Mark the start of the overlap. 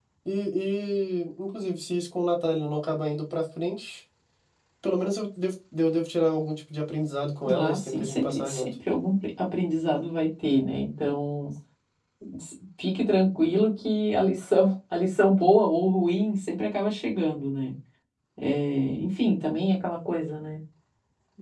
7.4 s

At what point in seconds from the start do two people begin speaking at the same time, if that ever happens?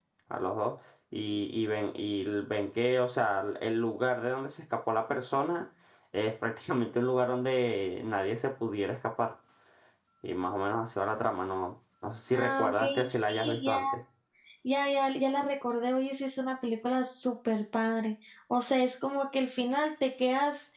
12.3 s

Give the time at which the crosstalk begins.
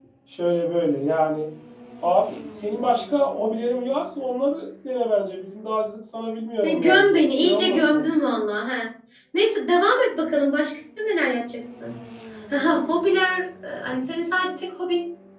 6.6 s

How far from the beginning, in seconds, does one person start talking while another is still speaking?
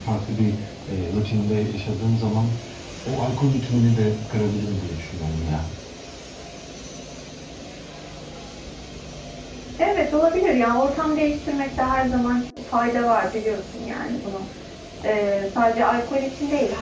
none

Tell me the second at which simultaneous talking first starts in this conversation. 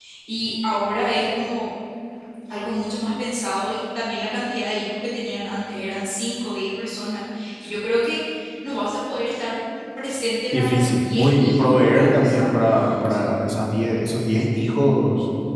10.5 s

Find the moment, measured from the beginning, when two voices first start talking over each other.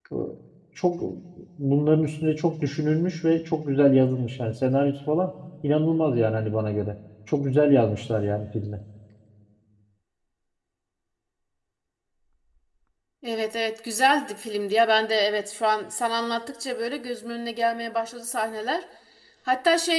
none

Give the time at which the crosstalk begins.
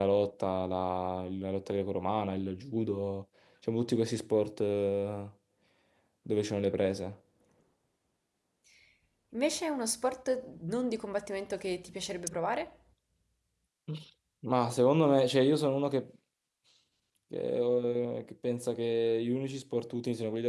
none

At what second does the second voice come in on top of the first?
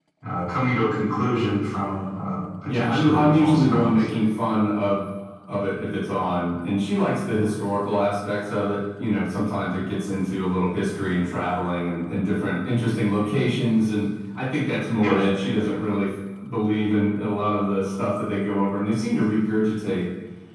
2.6 s

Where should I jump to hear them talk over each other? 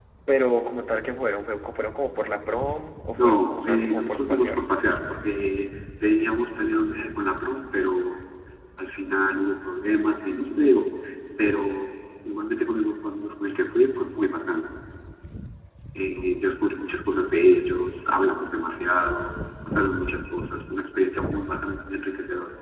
3.2 s

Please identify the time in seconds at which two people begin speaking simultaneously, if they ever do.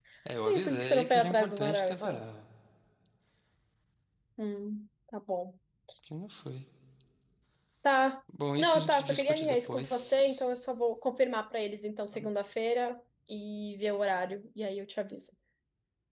0.5 s

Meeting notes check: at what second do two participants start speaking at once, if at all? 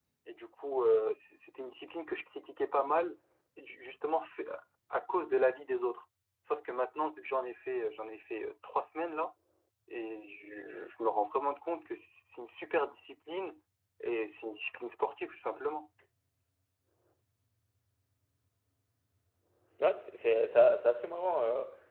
none

